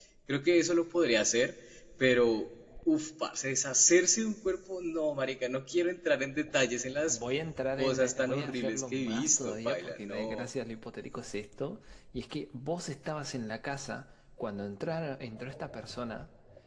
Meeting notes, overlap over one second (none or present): present